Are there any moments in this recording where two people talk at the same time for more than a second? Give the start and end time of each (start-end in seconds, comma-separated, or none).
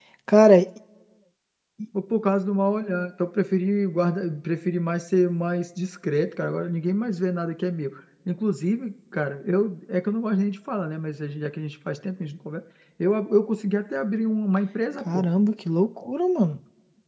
none